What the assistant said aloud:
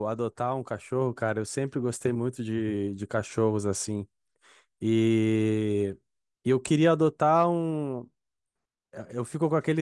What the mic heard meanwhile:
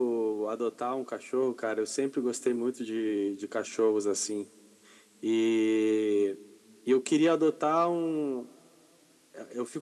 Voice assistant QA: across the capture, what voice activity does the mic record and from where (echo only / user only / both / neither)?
echo only